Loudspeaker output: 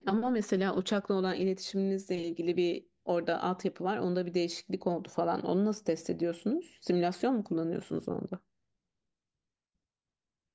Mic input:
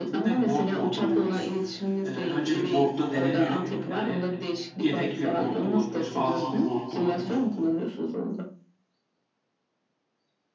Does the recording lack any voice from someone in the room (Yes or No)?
No